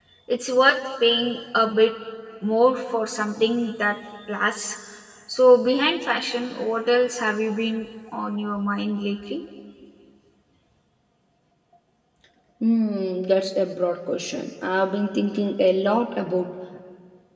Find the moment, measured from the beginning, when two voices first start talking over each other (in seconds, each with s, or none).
none